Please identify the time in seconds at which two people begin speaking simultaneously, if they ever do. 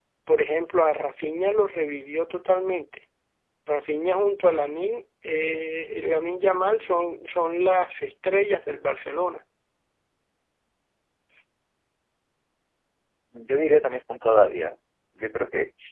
none

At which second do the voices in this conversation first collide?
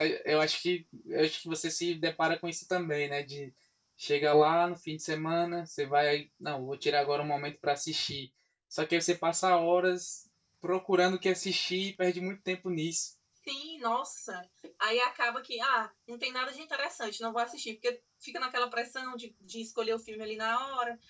none

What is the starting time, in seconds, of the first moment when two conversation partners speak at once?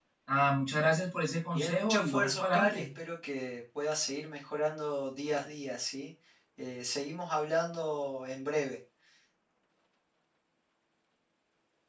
1.5 s

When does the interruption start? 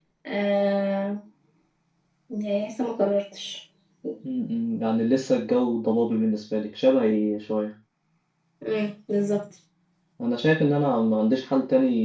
none

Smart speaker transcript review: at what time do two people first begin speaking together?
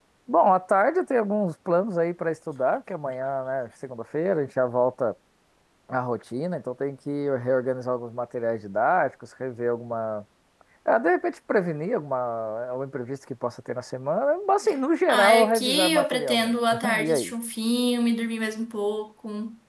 15.1 s

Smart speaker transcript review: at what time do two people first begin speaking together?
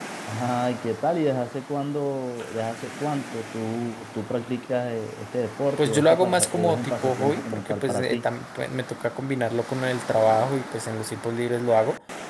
5.8 s

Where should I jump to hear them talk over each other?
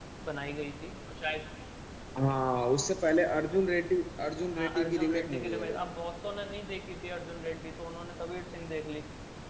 4.5 s

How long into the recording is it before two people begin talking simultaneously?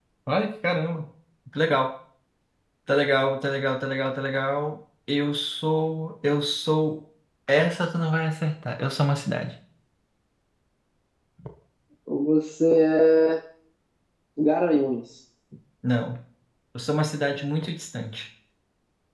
none

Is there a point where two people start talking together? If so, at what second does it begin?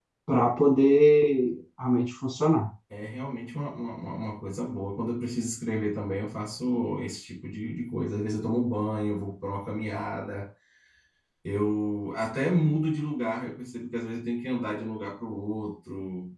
none

